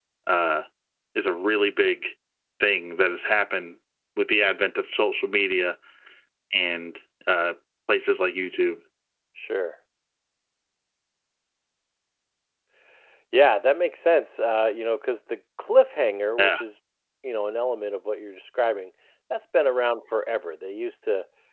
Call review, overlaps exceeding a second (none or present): none